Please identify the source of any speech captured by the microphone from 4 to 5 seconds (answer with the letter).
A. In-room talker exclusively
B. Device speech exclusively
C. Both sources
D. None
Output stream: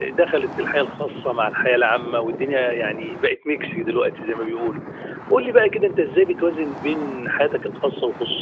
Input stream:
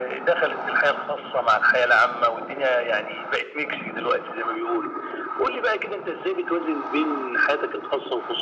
B